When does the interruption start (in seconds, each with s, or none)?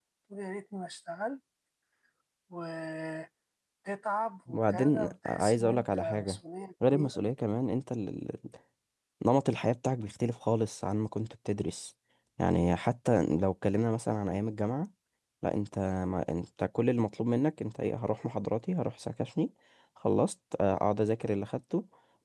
4.5 s